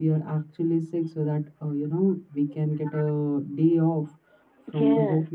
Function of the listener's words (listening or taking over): listening